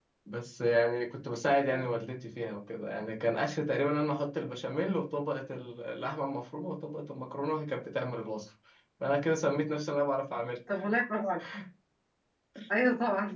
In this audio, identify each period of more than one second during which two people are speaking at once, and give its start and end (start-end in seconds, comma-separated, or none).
none